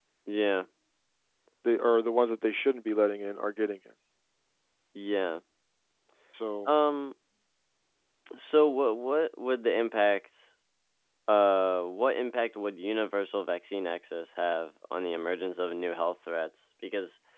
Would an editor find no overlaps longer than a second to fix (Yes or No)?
Yes